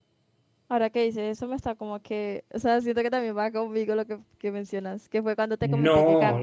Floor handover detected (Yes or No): Yes